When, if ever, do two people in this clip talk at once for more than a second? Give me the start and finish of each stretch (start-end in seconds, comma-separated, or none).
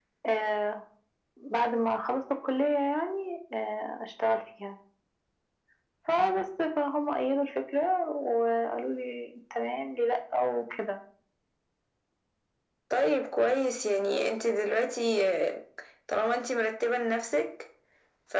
none